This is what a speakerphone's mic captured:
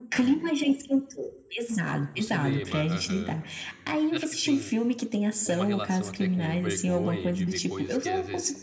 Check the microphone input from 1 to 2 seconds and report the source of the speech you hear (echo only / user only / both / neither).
echo only